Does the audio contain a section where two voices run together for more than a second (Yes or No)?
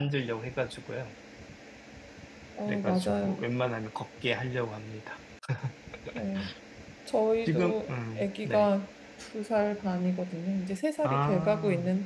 Yes